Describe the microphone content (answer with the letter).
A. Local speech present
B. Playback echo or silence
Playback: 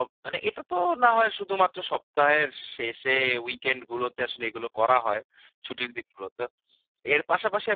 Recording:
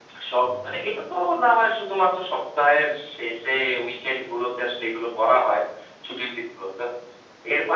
A